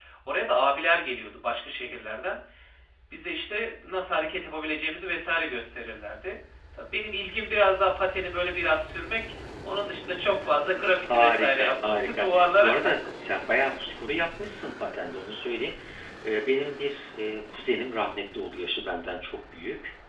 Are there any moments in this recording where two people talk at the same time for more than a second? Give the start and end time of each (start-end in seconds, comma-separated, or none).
11.1-12.7